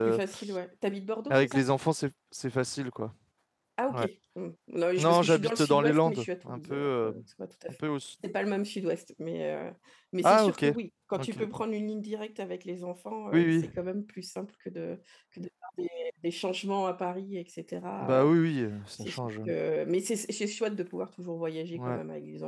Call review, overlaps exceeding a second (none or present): present